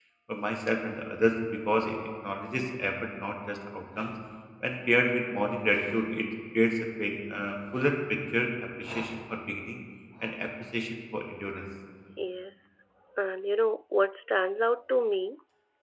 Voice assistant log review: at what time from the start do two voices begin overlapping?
none

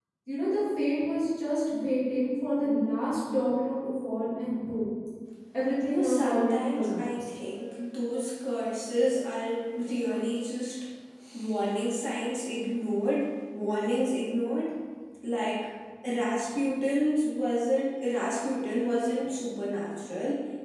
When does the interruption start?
5.9 s

